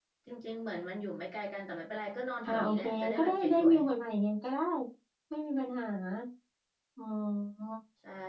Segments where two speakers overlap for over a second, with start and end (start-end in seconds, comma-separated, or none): 2.5-3.8